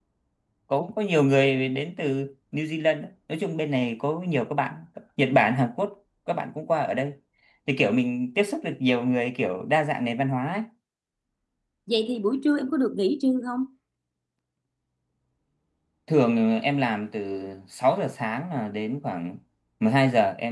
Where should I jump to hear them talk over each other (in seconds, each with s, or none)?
none